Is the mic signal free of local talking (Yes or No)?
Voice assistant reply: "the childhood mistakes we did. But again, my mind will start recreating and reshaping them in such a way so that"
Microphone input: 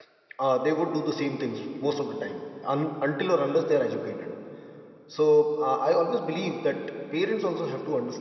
No